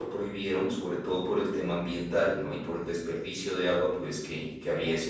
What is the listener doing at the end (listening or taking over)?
listening